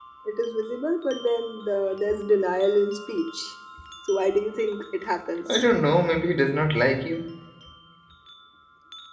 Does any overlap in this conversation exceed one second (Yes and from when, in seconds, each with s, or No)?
No